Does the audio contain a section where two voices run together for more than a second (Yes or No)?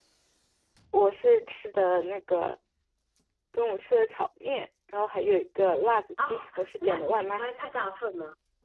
Yes